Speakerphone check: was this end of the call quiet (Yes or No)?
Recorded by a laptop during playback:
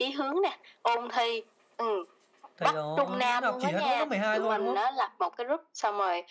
No